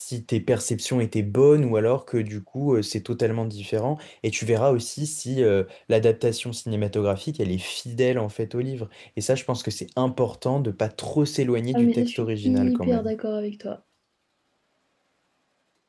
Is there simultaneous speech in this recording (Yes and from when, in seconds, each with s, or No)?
Yes, from 11.7 s